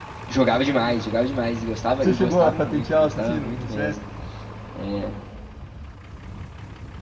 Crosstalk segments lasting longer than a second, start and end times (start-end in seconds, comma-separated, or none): 2.0-4.0